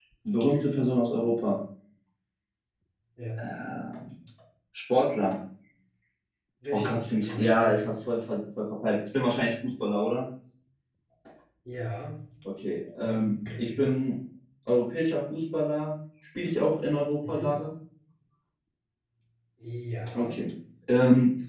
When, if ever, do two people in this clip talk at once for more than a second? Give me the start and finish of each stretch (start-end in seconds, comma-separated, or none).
6.7-7.9